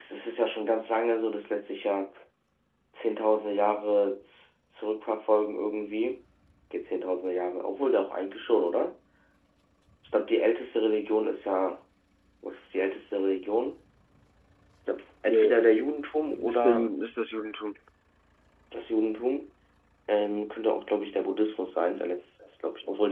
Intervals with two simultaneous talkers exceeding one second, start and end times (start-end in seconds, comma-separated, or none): none